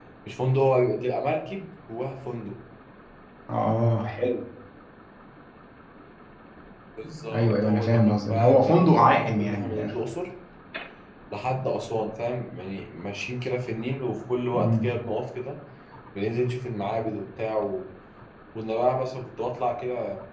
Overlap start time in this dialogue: 7.3 s

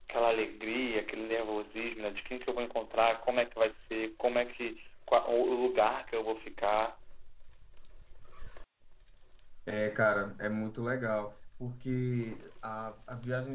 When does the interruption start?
none

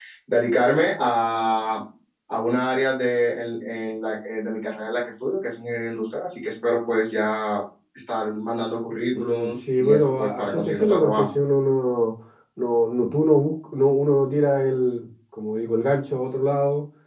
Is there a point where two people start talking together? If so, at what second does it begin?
9.1 s

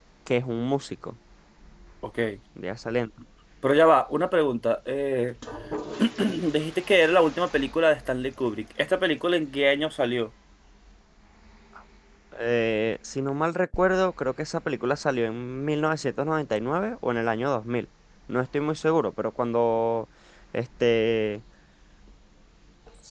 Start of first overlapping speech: none

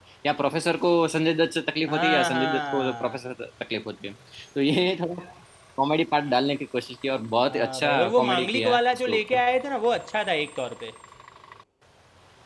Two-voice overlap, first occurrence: 1.9 s

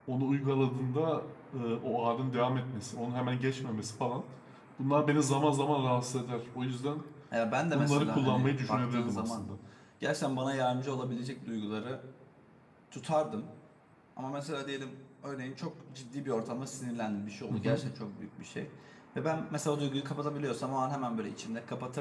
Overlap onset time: 7.7 s

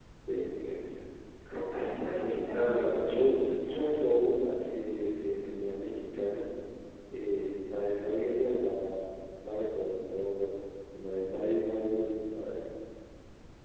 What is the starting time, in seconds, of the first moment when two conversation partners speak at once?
1.4 s

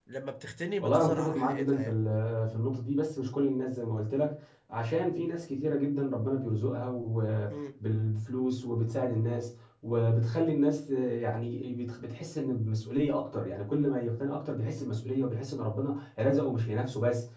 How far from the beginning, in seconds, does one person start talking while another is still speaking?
0.8 s

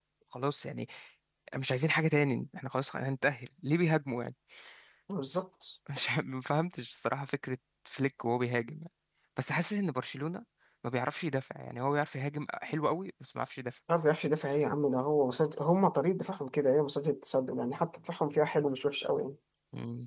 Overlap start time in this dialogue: none

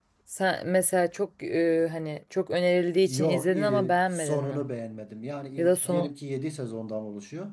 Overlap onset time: 3.1 s

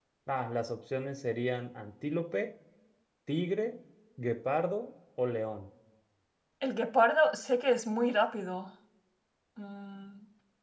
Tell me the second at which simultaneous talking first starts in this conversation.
none

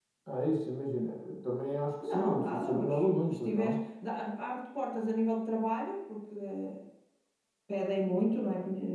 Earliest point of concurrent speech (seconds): 2.0 s

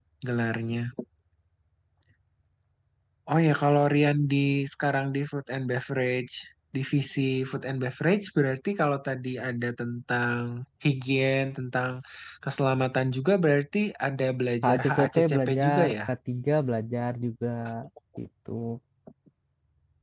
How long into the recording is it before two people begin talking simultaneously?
14.6 s

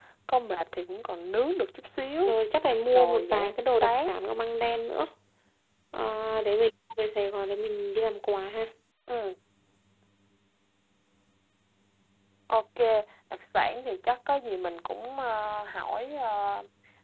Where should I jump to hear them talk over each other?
2.9 s

